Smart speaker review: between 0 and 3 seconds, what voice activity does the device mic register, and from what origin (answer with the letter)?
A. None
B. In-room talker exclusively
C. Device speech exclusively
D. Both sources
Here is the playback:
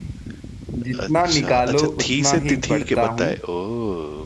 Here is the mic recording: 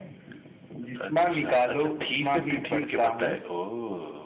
C